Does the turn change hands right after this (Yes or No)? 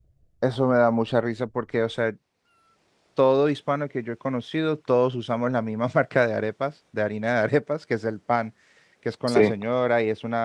No